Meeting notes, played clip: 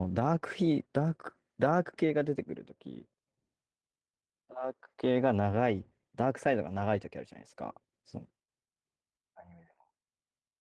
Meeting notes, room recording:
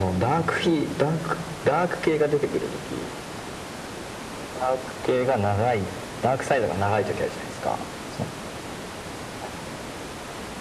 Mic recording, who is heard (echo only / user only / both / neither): echo only